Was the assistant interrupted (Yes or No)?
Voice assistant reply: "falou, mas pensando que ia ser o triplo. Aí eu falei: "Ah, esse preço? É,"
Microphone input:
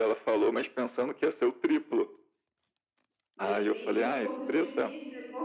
Yes